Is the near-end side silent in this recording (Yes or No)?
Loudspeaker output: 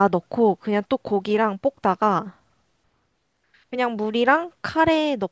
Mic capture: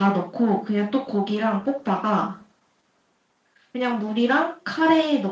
Yes